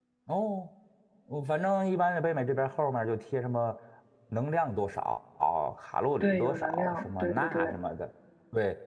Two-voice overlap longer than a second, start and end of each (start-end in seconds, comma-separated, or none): 6.2-7.7